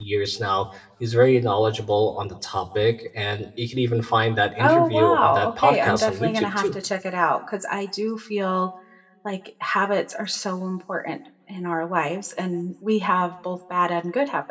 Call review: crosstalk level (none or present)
present